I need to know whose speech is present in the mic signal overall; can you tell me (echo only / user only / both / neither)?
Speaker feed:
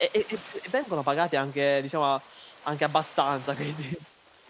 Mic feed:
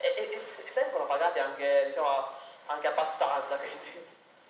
echo only